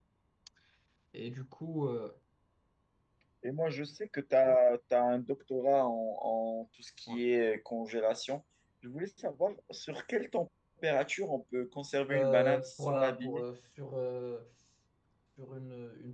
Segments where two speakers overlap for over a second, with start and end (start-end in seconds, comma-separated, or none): 12.1-13.4